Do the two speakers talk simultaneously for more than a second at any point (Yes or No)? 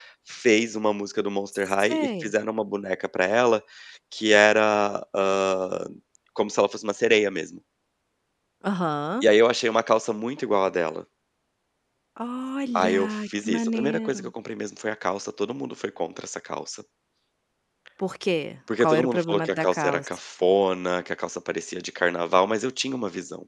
Yes